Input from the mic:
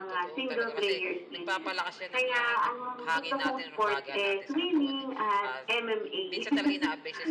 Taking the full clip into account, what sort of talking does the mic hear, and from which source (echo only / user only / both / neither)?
both